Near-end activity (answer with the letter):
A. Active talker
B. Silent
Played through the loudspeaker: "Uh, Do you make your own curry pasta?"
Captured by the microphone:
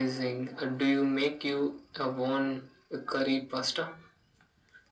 B